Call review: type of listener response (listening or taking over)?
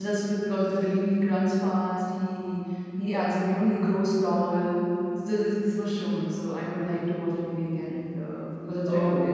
listening